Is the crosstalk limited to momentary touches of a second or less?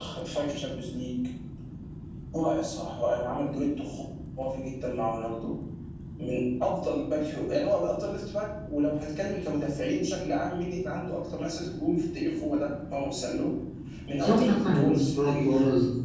No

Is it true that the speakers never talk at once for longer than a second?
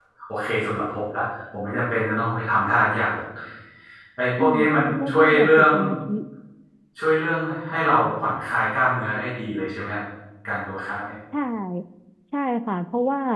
No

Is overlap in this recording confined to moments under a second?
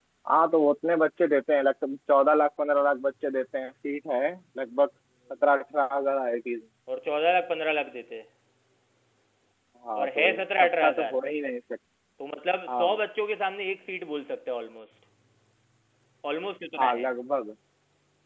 No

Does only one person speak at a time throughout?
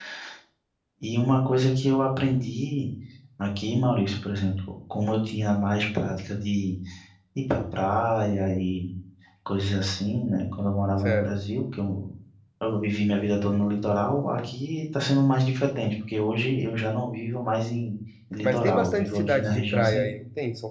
No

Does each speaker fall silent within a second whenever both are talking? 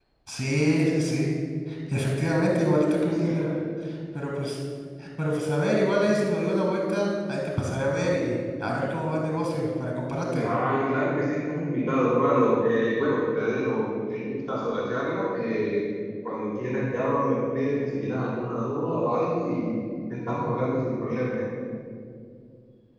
Yes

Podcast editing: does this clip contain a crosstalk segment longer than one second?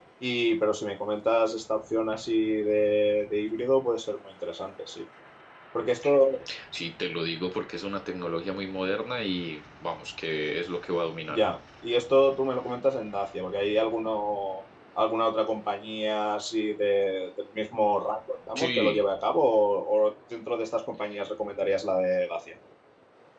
No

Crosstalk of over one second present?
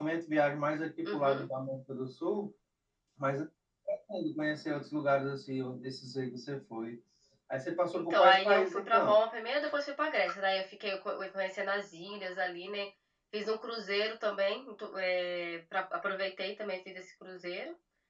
Yes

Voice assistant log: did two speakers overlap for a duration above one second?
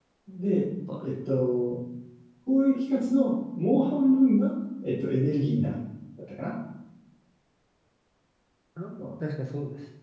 No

